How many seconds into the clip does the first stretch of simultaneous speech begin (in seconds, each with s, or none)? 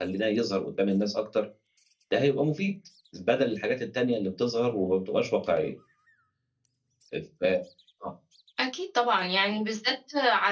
none